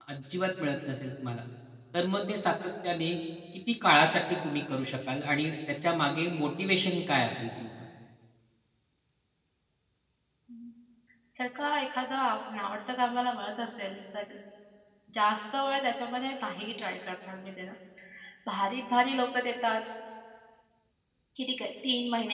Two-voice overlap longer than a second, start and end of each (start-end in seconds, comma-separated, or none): none